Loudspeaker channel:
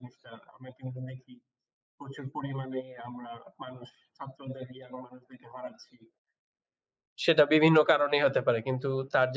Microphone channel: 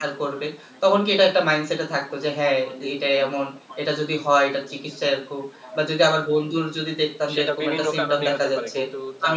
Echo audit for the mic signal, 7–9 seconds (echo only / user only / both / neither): both